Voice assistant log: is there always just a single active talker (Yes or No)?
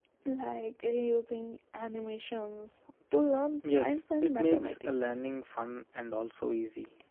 No